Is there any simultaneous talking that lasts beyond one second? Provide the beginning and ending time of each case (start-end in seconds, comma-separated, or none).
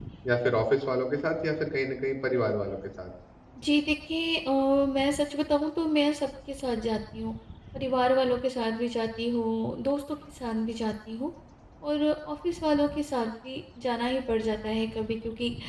none